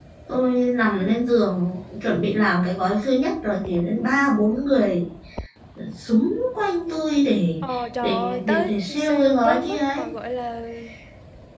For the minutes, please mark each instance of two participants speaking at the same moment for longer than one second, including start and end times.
8.0-10.0

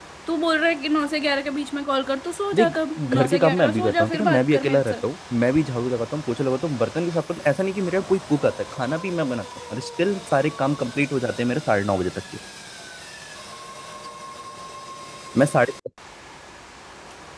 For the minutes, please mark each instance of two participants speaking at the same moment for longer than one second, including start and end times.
2.5-5.0

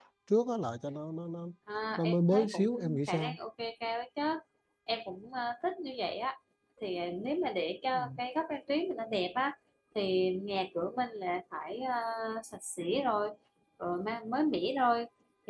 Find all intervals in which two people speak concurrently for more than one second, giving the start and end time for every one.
2.0-3.4

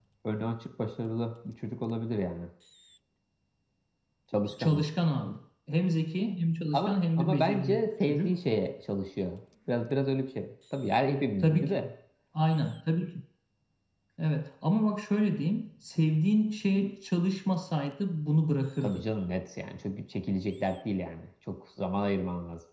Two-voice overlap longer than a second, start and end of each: 6.7-8.3

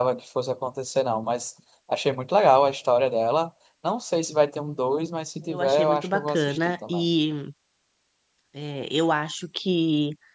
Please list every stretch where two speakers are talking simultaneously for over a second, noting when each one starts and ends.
5.4-7.0

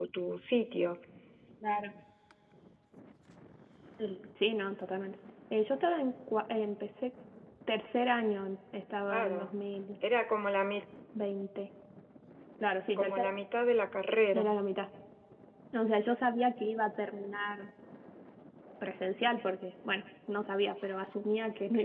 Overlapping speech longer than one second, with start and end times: none

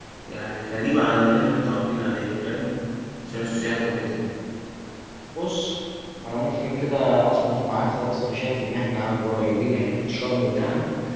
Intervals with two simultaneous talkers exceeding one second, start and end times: none

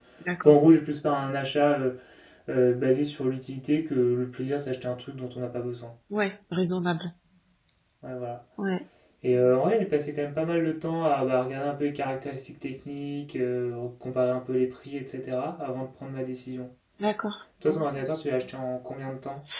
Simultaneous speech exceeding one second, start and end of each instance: none

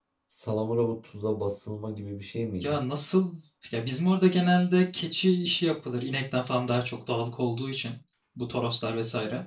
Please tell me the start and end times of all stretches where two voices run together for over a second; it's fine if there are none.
none

